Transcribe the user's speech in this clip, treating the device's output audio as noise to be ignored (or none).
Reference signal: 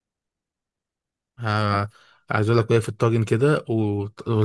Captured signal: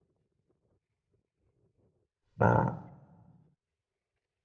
ما-